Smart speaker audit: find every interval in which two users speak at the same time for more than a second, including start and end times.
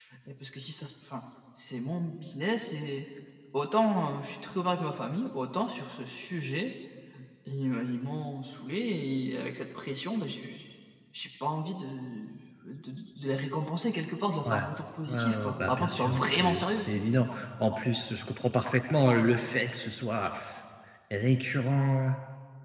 15.1-16.9

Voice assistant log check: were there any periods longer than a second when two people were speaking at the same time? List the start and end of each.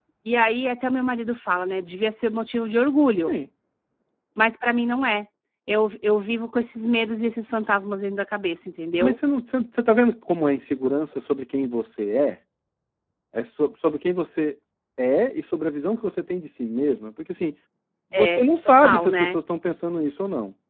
18.1-19.4

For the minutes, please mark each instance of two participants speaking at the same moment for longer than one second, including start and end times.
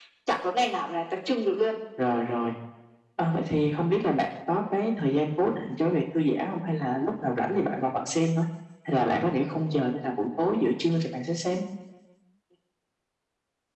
none

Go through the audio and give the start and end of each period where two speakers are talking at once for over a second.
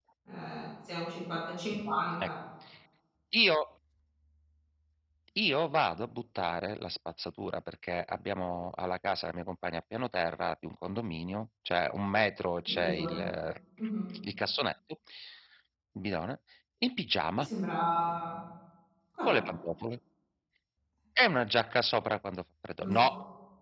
none

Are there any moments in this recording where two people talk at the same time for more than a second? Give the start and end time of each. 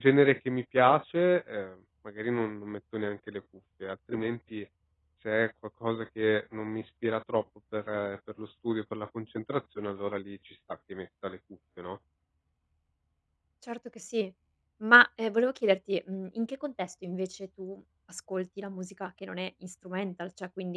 none

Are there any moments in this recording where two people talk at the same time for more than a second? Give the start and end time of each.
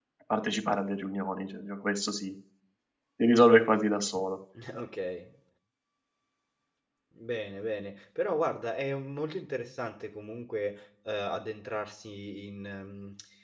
none

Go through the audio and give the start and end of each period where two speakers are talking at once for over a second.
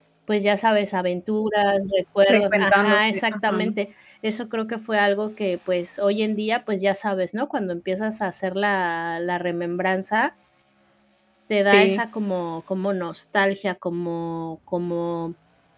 2.3-3.6

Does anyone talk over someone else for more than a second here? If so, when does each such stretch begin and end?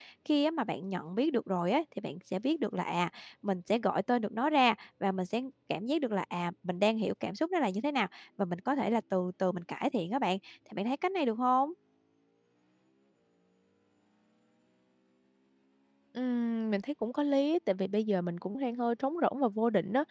none

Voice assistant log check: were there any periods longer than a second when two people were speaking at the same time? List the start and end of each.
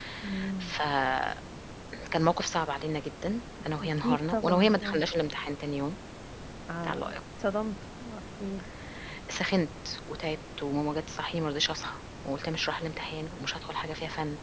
3.8-5.0

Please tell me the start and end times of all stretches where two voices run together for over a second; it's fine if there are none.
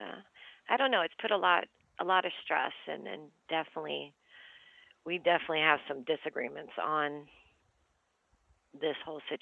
none

